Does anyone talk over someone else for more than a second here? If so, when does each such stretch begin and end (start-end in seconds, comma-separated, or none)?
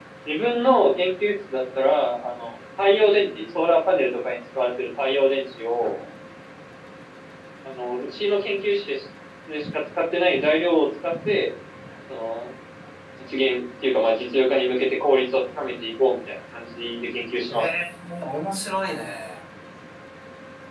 none